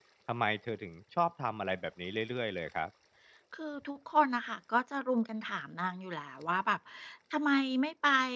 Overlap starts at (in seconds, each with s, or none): none